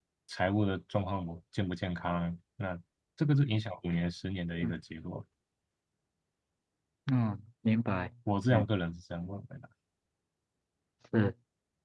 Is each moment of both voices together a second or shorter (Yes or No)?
Yes